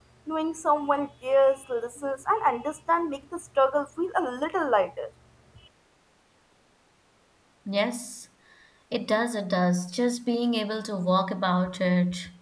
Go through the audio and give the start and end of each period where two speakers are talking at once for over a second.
none

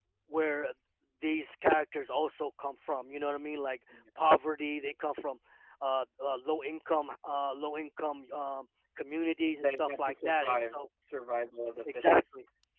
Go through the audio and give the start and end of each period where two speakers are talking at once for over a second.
9.5-10.8

